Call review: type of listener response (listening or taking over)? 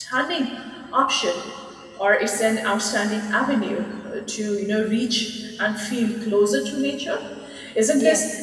listening